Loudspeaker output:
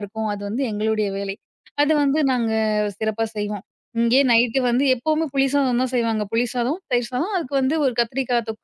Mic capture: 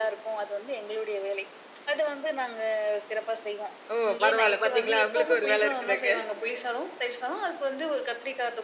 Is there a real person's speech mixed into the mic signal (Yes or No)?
Yes